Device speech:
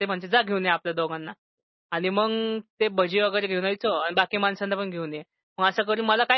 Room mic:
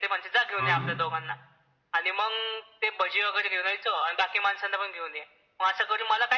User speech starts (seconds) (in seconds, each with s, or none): 0.6 s